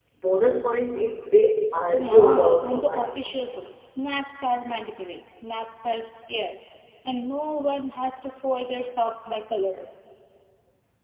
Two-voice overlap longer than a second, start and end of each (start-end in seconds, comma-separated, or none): 1.9-3.2